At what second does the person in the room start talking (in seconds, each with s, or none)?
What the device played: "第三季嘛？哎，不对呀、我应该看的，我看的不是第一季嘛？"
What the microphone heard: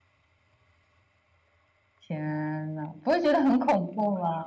2.0 s